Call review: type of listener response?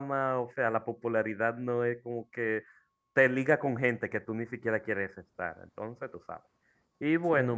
listening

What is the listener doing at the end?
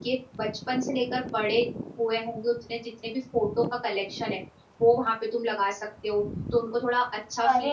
taking over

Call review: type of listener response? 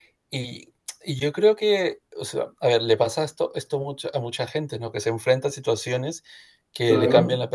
listening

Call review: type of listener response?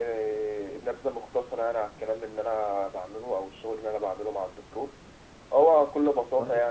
listening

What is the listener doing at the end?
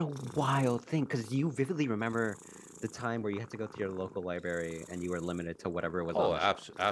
taking over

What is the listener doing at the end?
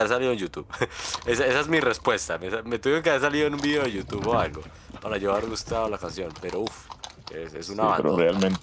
taking over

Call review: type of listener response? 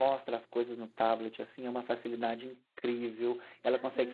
listening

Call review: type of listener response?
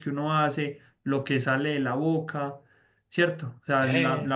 listening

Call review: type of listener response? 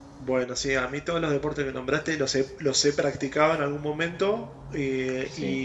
listening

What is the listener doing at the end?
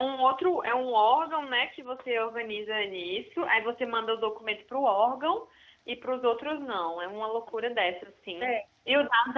listening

